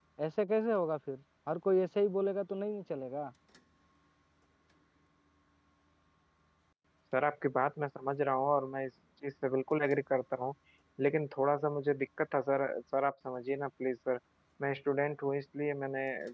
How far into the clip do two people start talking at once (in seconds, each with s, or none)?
none